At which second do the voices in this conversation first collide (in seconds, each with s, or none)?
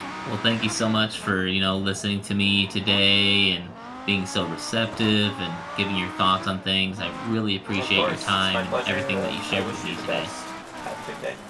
7.7 s